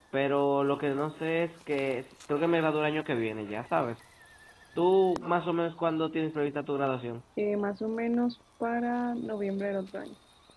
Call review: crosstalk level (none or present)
none